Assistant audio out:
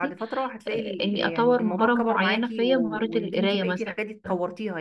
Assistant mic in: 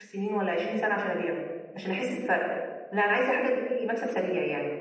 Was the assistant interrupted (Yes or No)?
Yes